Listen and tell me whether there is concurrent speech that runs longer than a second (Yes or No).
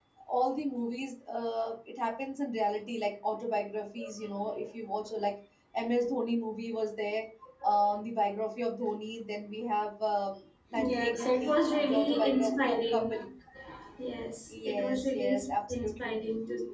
Yes